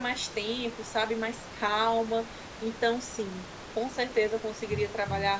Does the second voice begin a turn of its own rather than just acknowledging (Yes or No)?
No